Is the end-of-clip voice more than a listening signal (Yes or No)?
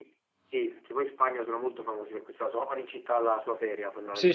Yes